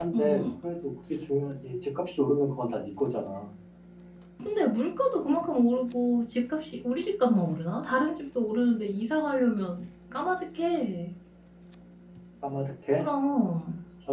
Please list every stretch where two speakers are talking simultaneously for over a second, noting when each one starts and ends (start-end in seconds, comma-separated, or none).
none